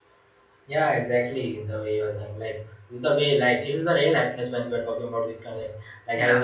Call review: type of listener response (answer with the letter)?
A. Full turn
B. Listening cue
B